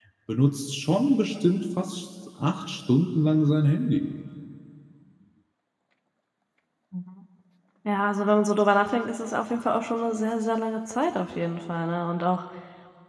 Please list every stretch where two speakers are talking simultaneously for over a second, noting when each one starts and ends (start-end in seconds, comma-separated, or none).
none